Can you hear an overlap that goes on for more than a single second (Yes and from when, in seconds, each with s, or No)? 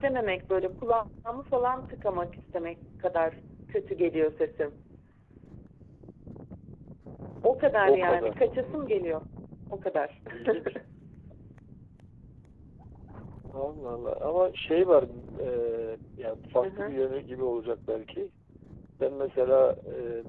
Yes, from 7.8 s